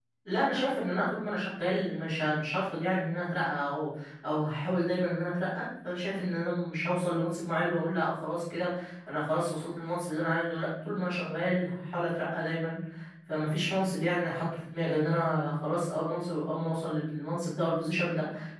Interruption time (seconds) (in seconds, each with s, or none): none